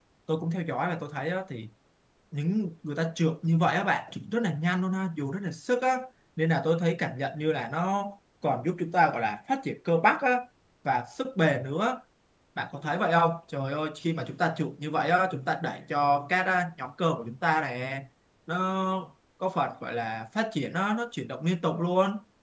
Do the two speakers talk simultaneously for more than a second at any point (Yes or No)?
No